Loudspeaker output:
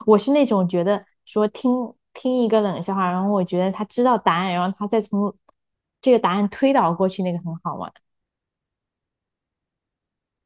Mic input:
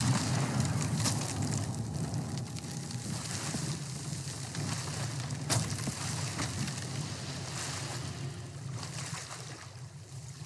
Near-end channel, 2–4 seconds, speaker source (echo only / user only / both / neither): neither